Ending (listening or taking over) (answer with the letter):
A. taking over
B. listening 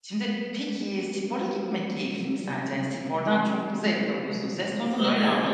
A